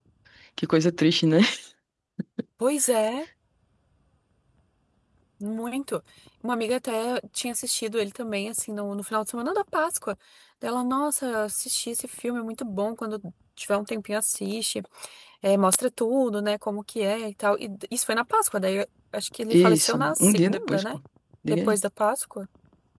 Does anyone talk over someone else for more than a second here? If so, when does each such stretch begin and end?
19.5-21.0

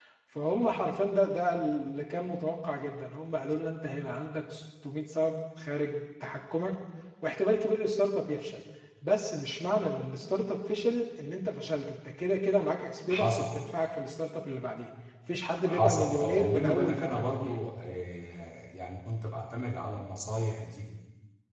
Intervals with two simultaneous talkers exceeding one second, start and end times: 15.6-17.6

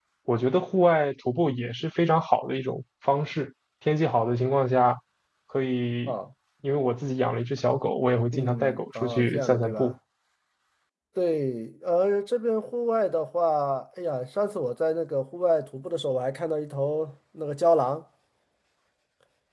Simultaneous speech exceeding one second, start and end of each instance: 8.3-9.9

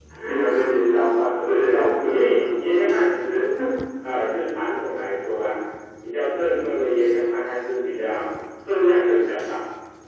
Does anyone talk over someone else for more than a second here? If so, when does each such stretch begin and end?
1.4-3.0

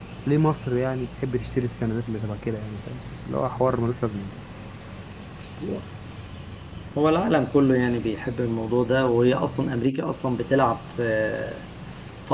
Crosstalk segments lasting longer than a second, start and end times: none

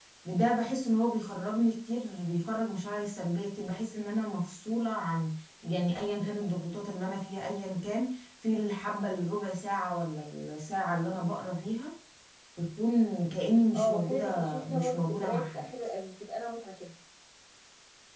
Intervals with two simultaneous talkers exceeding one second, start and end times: 13.7-15.7

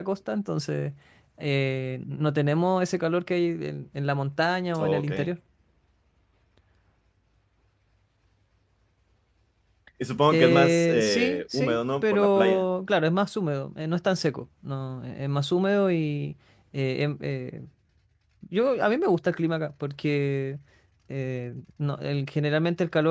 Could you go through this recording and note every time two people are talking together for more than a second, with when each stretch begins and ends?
10.3-12.6

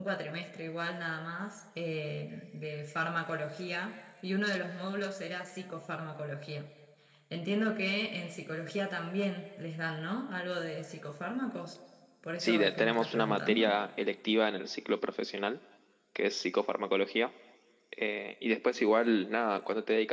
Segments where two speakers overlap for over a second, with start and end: 12.4-13.8

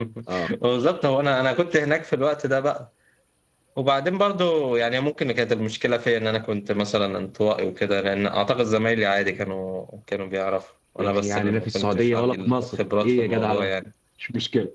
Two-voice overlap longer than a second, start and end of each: 11.0-13.7

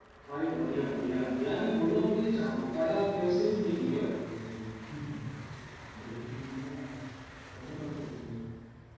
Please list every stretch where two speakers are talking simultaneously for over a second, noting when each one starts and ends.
2.8-4.0

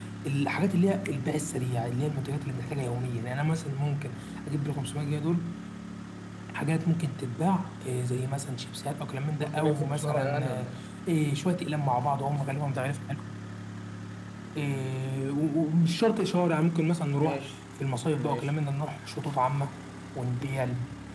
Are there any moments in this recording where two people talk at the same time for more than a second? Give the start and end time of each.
9.4-10.7

